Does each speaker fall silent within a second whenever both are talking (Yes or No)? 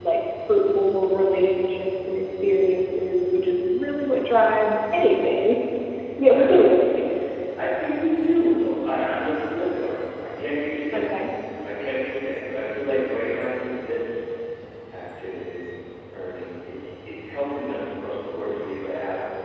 Yes